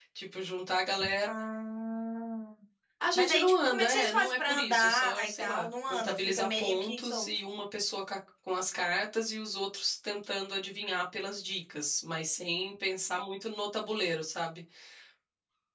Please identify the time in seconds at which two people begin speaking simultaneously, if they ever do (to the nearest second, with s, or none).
3 s